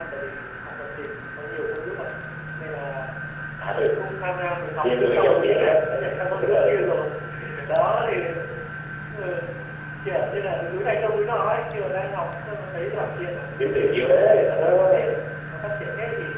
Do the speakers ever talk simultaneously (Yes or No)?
Yes